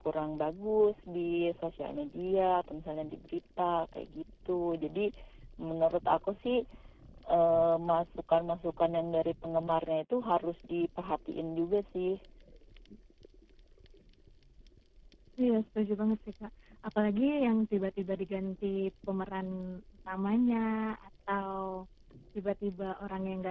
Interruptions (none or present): none